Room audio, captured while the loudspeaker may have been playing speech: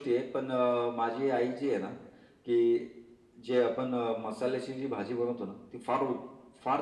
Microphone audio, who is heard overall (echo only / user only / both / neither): echo only